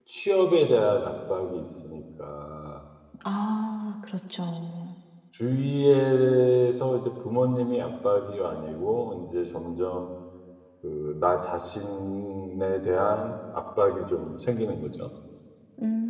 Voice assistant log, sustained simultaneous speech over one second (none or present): none